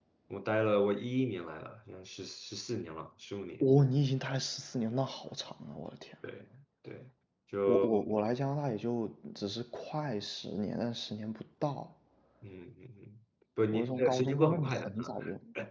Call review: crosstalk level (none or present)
present